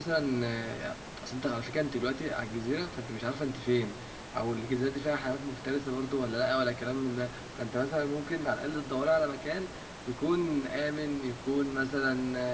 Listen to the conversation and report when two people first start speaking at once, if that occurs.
none

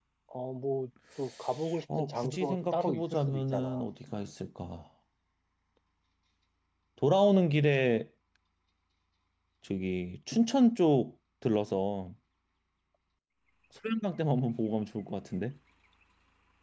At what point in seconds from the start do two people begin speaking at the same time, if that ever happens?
2 s

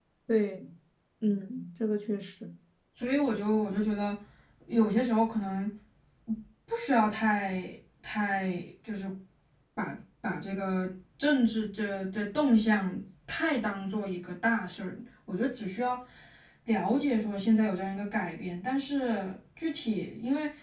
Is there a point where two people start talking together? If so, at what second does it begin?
none

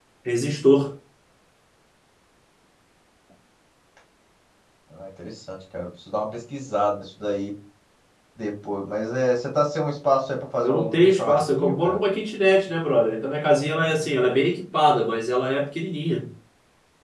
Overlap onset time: 11 s

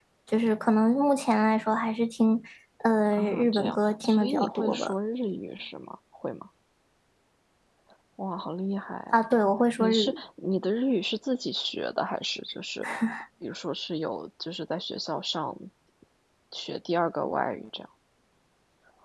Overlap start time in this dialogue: 3 s

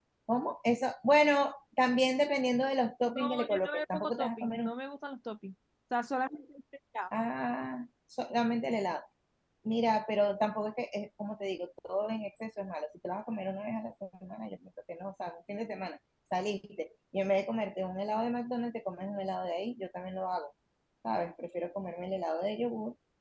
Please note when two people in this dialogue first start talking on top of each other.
3 s

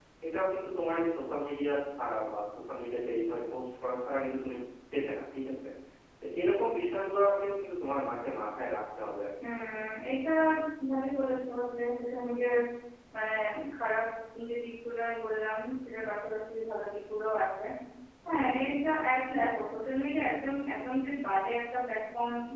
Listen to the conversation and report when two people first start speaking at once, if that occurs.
none

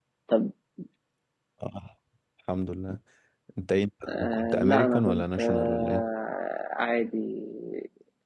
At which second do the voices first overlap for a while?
4 s

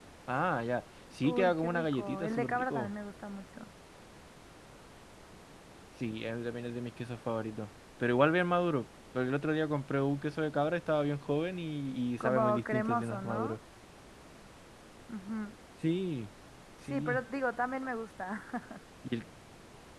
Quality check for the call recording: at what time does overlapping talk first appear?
1 s

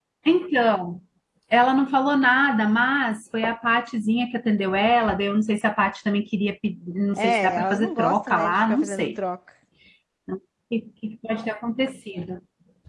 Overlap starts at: 7 s

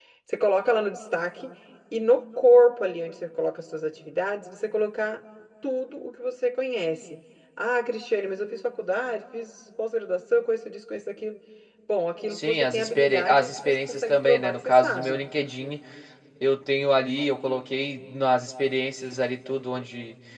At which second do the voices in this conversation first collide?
12 s

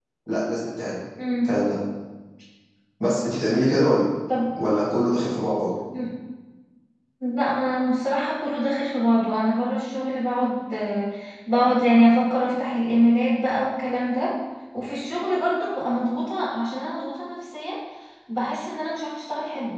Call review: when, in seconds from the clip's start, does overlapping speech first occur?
none

